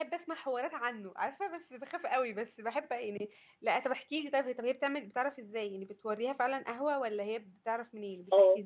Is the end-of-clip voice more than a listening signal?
Yes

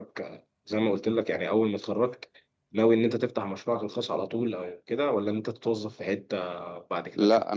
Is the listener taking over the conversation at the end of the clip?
Yes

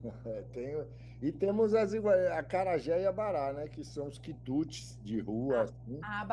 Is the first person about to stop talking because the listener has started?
Yes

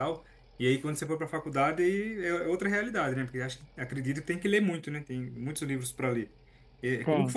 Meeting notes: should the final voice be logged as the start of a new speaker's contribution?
No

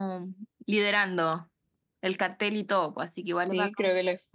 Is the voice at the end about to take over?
Yes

